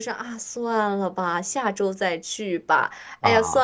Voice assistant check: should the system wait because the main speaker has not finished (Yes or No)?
Yes